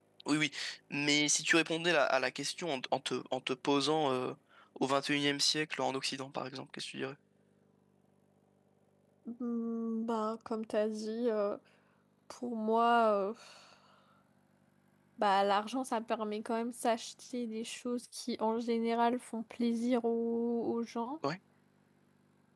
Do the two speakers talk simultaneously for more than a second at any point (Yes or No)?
No